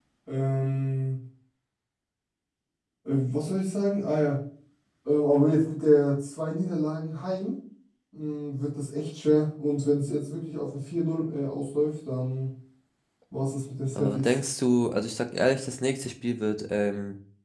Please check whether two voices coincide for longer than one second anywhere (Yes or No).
No